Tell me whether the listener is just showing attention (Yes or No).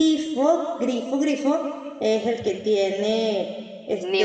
No